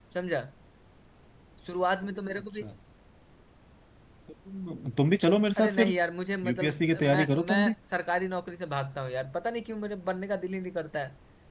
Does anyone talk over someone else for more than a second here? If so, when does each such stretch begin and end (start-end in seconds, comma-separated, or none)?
6.4-7.7